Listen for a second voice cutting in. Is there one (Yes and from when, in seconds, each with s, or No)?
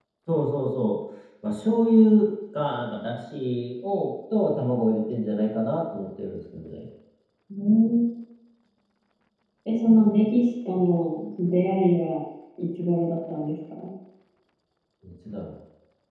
No